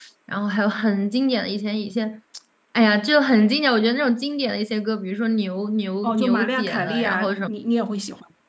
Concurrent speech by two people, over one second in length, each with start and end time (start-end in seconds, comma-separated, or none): 6.0-7.5